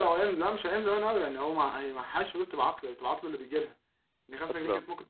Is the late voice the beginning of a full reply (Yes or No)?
No